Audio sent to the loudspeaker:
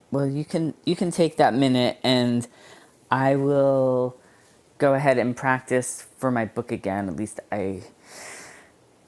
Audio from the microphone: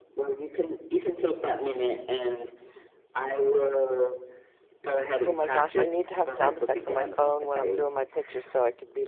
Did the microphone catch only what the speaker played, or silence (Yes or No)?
No